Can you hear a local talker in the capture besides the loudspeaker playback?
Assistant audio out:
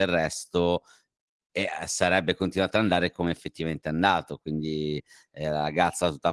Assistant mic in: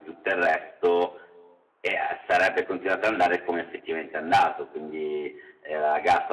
No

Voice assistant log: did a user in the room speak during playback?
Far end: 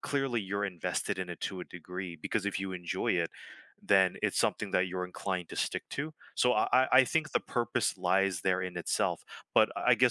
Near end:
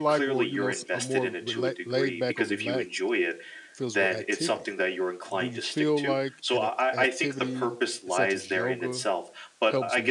Yes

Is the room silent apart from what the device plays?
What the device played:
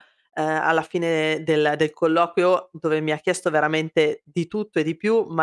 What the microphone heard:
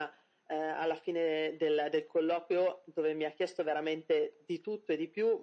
Yes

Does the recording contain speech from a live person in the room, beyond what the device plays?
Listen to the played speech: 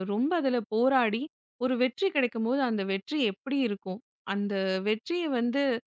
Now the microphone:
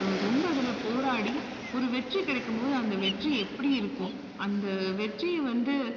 No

